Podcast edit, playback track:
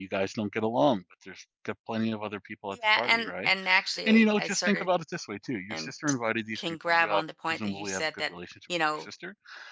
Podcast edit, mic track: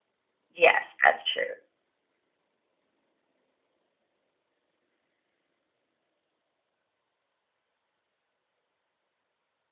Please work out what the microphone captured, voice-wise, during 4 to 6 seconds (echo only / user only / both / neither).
neither